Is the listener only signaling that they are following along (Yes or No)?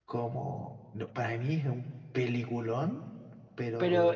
No